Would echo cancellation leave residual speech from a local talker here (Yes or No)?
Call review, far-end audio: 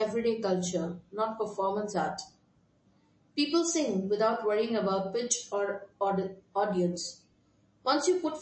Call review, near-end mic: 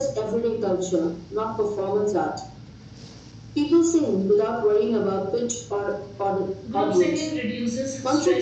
Yes